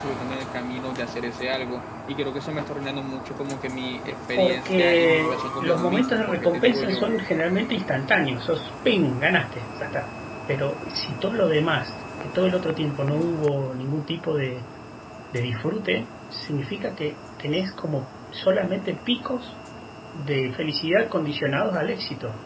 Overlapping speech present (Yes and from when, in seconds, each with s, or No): Yes, from 4.4 s